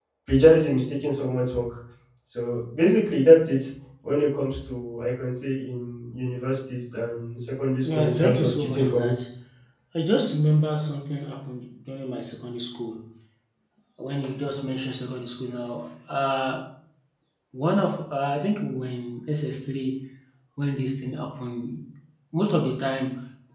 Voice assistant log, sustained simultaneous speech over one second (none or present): present